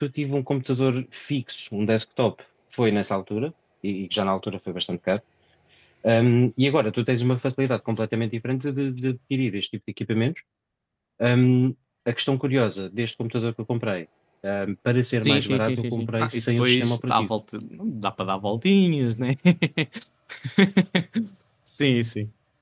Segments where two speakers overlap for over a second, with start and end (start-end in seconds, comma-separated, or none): 15.2-17.3